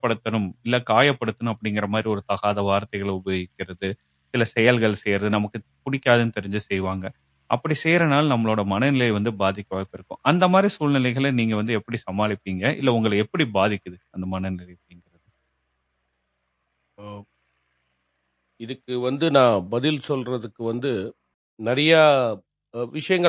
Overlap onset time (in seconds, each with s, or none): none